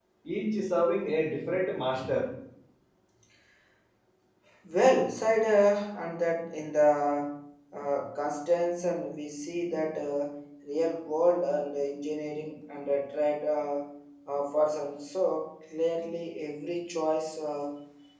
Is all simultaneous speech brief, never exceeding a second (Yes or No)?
Yes